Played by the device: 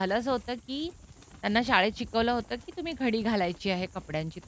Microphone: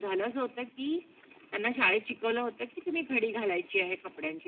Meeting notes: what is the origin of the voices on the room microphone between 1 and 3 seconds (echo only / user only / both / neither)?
echo only